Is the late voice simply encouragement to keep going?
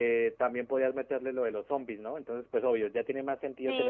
No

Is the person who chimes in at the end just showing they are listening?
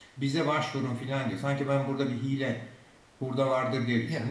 No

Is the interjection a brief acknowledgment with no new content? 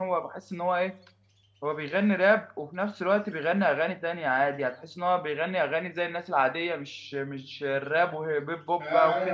No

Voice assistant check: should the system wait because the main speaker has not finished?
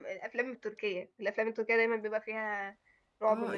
No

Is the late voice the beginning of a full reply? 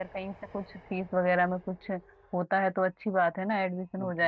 Yes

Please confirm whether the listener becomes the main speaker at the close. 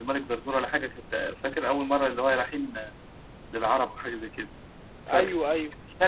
No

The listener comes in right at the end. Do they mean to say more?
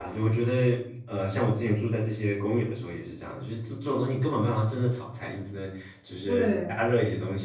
No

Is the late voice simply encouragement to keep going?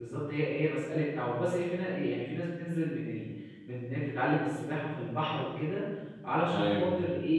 Yes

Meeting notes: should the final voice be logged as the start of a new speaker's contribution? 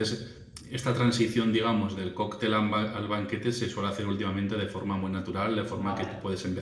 No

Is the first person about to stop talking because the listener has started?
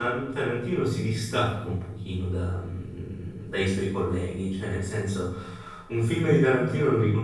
No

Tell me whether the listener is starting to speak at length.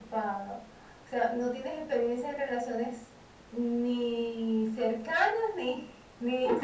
Yes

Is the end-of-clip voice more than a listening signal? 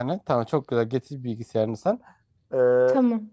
No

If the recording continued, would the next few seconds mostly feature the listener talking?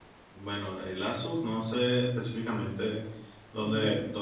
No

